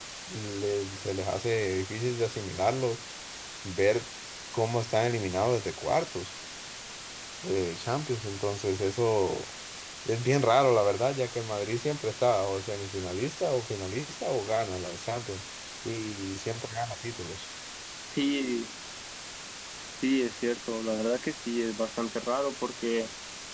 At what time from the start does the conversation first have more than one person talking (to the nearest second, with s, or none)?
none